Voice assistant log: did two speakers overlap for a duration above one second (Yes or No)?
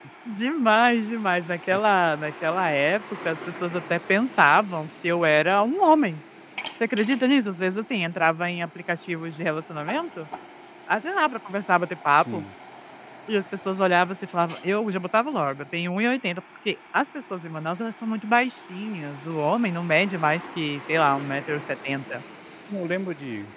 No